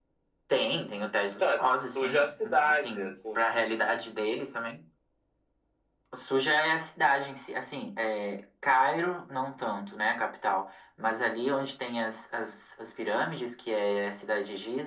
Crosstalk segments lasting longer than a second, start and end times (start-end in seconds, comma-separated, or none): 1.4-3.4